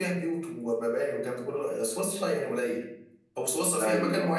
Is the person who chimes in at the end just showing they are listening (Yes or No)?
Yes